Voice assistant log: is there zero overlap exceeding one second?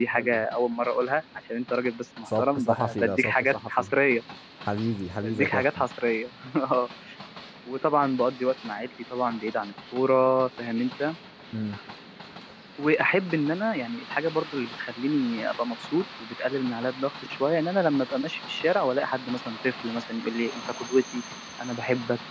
No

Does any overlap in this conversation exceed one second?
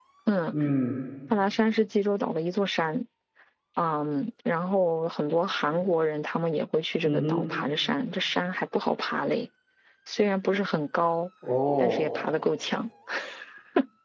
No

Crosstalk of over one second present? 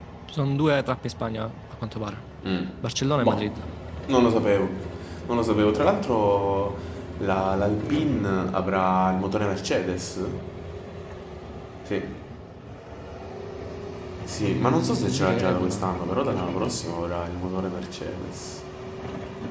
Yes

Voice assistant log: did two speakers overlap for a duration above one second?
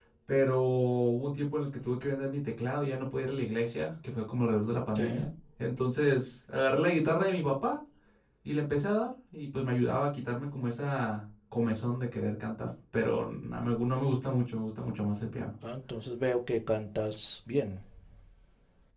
No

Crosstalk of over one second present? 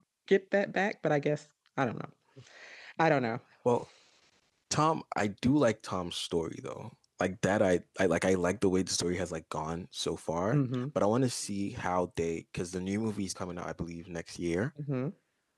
No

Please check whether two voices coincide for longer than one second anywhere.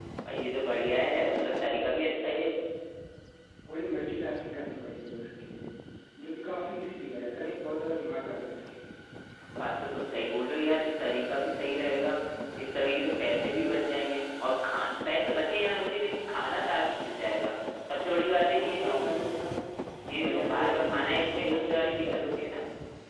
Yes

